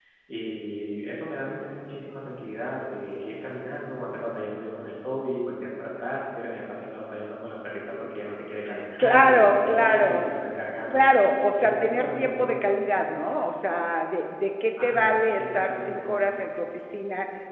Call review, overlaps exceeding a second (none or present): present